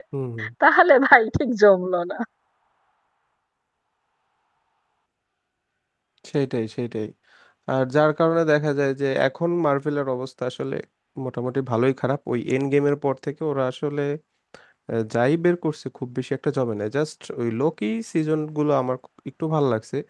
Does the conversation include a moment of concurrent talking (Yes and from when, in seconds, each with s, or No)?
No